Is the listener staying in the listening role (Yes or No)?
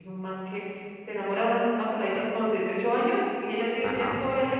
Yes